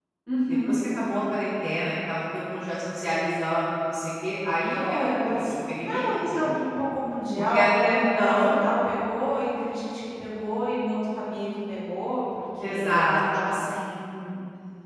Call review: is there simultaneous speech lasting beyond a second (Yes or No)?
Yes